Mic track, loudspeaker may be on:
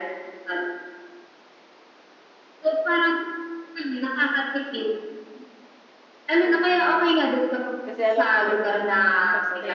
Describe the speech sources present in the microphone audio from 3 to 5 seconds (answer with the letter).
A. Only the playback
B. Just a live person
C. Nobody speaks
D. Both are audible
A